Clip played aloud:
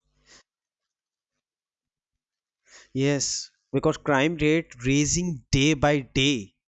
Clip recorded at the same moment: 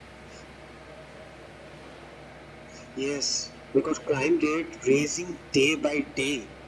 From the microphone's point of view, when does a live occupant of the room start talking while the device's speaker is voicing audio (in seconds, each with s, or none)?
none